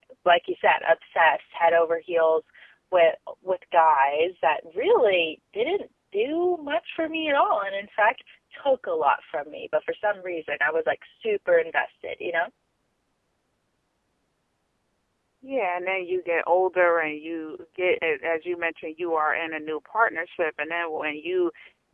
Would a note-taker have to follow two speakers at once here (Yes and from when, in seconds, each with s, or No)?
No